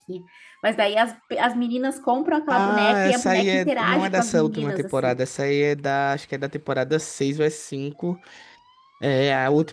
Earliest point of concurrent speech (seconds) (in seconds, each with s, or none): 2.5 s